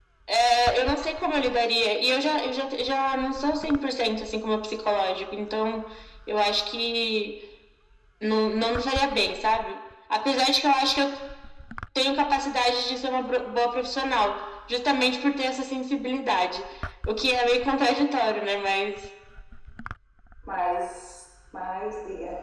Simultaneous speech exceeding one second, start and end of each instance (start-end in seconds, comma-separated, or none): none